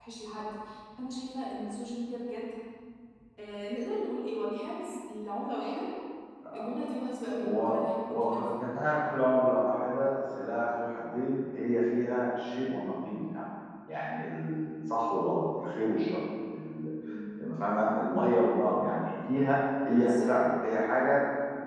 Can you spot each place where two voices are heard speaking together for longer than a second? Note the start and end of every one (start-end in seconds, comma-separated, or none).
7.3-8.6